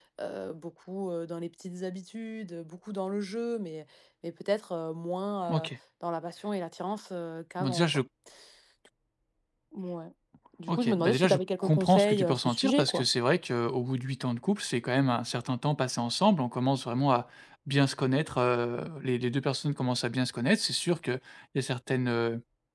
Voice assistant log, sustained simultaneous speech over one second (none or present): present